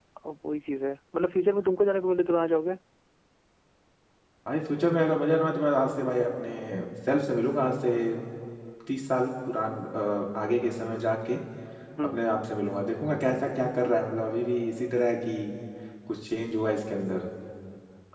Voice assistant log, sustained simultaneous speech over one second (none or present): none